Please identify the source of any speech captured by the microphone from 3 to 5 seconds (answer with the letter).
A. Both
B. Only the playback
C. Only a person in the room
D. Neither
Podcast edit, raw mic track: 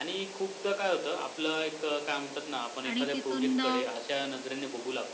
A